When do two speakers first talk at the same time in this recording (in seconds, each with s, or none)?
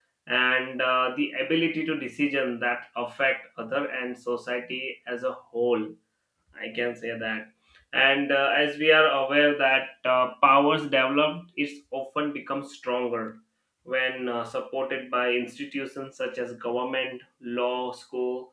none